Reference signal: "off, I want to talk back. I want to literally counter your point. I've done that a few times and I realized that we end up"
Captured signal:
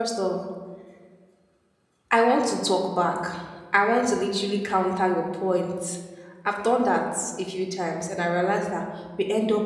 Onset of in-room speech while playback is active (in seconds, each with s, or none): none